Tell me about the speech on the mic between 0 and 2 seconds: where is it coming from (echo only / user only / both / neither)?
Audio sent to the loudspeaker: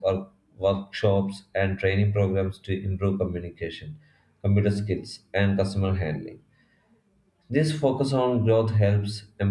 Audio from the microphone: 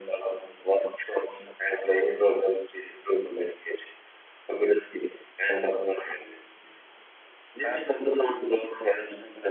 echo only